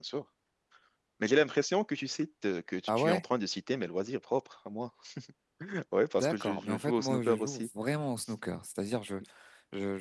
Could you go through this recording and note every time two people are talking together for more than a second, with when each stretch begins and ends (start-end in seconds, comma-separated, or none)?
6.2-7.7